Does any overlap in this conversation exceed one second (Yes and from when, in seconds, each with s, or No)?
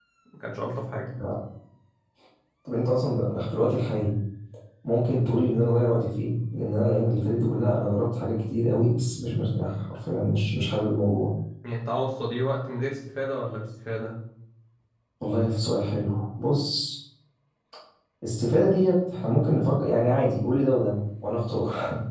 No